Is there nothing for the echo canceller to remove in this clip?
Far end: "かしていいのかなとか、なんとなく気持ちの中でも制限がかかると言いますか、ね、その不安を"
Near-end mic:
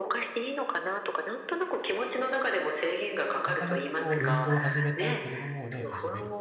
No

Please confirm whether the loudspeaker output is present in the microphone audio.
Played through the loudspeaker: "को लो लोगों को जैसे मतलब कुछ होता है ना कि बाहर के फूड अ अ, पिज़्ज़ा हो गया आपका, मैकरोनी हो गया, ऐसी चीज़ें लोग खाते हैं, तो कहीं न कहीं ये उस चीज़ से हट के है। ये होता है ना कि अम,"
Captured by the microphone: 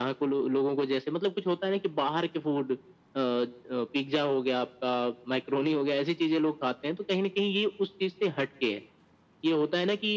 Yes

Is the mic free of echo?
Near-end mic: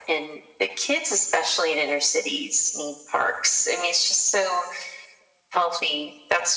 No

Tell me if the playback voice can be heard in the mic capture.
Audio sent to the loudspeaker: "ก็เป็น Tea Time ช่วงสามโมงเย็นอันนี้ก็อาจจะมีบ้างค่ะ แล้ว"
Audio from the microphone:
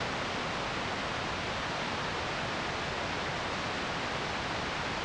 No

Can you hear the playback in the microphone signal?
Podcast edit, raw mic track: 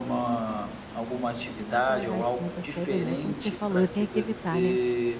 Yes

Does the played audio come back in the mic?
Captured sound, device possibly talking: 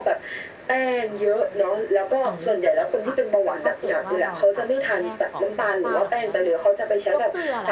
Yes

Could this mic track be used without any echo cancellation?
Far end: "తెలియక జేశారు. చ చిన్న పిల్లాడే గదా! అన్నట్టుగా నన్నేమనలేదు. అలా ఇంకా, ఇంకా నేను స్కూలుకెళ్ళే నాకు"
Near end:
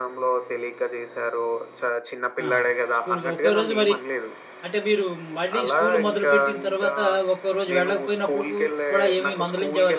No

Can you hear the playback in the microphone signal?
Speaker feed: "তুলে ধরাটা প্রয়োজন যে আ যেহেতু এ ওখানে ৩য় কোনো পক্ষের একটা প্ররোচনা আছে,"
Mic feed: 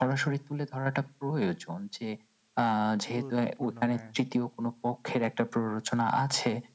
Yes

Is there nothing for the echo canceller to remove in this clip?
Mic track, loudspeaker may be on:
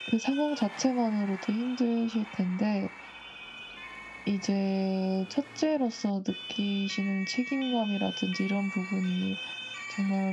Yes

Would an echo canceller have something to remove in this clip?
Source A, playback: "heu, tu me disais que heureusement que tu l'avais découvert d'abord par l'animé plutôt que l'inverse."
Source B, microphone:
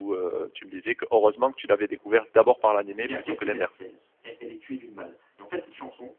Yes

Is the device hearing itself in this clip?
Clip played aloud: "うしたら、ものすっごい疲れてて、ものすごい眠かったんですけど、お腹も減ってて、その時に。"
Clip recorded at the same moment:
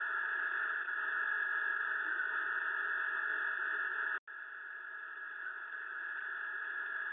No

